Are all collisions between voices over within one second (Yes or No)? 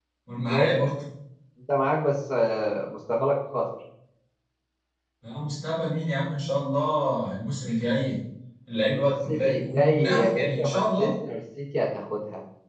No